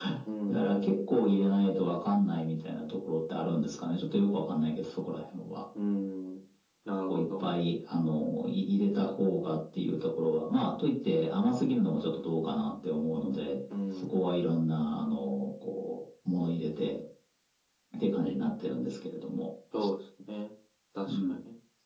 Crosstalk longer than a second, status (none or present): none